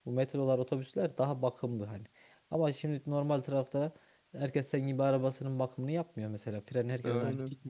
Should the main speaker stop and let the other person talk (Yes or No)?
No